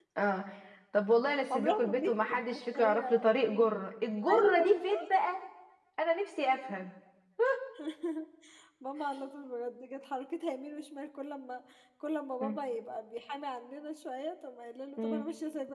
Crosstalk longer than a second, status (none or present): present